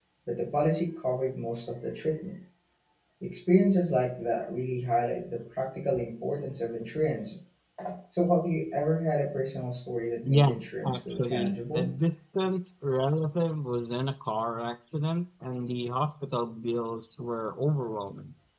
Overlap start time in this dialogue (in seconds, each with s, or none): 10.2 s